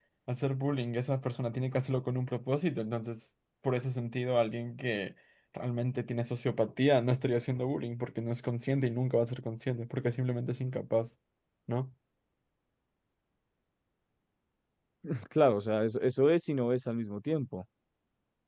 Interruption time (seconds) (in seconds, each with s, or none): none